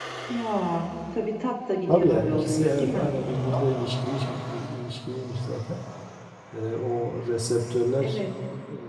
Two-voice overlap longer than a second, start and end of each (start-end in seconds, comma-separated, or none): 1.9-3.1